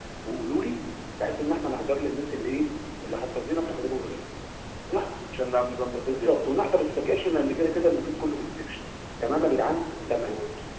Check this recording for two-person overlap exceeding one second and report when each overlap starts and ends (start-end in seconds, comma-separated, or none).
none